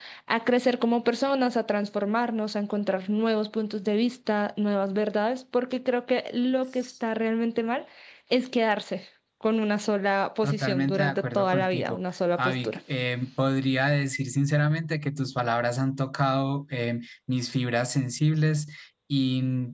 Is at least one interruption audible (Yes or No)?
Yes